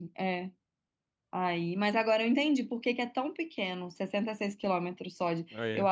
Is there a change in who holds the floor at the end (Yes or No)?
No